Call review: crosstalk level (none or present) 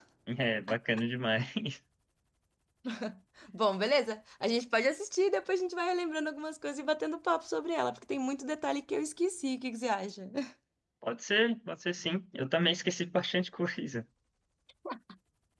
none